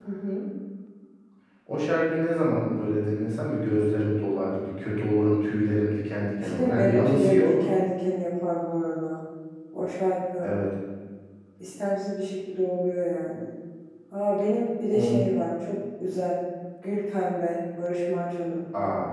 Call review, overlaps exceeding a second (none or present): present